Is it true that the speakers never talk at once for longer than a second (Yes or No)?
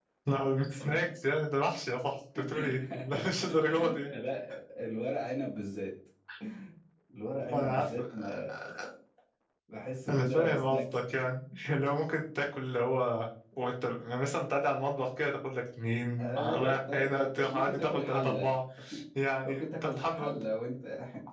No